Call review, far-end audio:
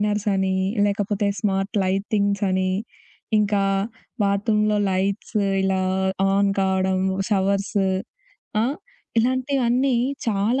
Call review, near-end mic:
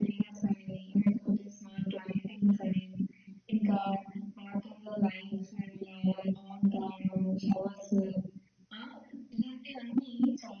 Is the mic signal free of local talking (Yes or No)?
Yes